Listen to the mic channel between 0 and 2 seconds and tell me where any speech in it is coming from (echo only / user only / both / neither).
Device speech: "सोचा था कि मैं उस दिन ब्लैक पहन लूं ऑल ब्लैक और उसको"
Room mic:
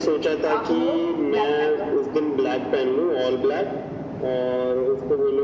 both